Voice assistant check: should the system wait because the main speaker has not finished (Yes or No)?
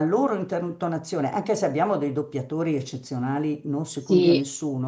Yes